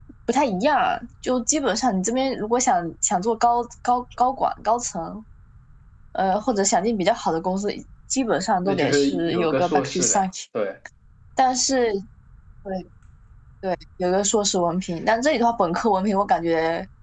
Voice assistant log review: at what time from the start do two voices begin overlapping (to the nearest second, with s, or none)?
9 s